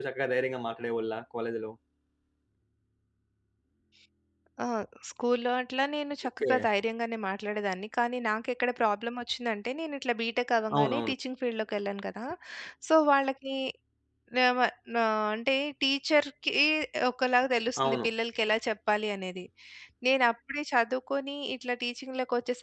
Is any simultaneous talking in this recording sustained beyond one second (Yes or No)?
No